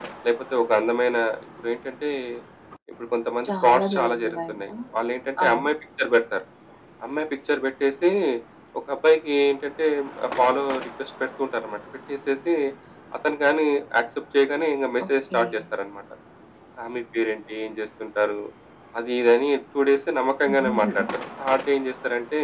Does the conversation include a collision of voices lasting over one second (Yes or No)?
Yes